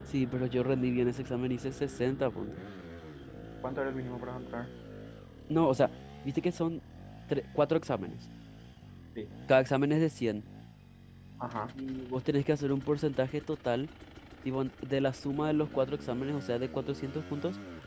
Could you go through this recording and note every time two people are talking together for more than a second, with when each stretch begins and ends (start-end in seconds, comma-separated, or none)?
none